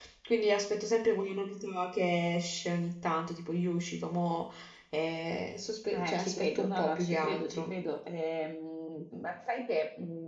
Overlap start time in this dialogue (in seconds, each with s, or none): 5.9 s